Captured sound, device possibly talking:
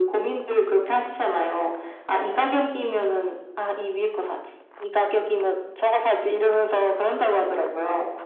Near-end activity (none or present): none